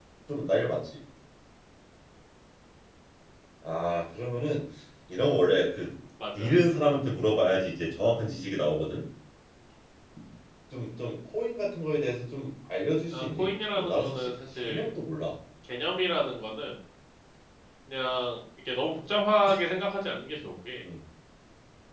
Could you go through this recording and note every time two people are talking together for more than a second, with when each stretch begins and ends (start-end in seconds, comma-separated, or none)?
13.1-14.9